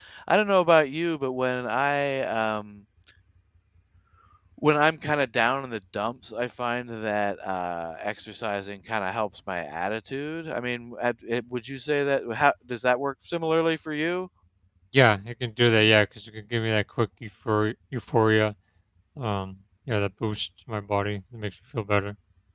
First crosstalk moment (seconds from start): none

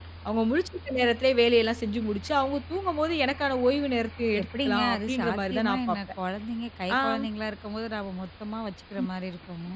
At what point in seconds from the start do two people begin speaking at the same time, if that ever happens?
4.4 s

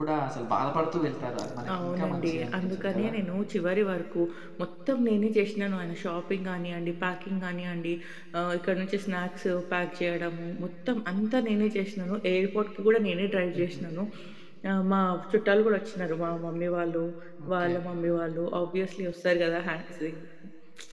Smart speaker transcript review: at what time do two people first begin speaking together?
1.8 s

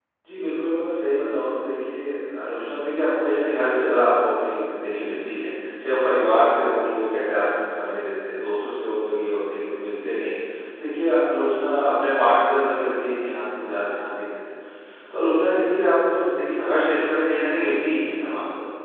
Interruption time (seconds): none

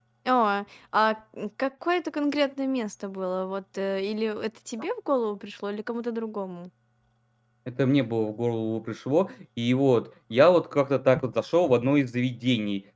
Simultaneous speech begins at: none

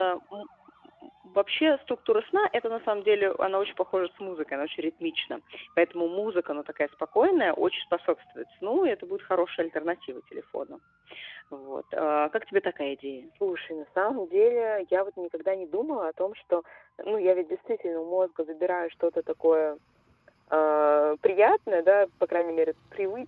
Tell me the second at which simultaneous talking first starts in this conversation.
none

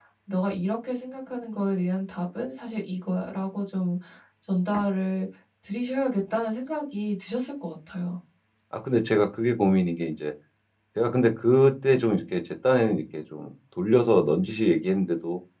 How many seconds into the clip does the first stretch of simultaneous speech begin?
none

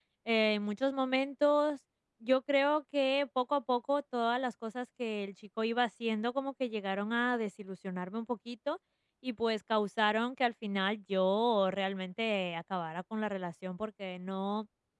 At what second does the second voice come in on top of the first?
none

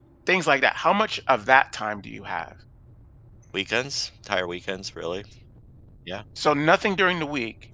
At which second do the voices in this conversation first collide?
none

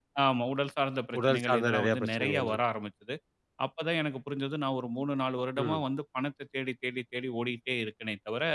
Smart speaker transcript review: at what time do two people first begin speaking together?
1.2 s

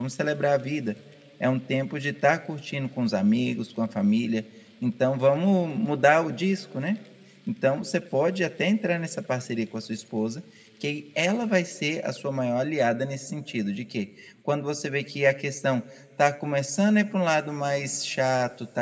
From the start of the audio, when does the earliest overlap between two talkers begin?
none

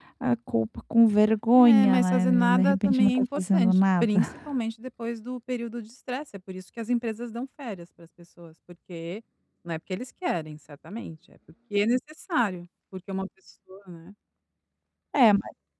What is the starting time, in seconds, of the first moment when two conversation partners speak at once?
1.5 s

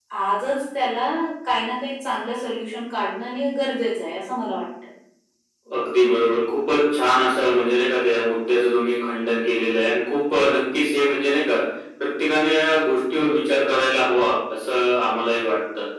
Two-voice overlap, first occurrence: none

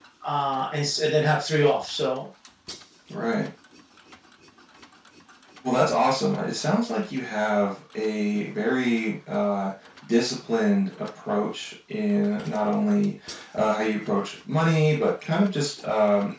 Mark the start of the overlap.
none

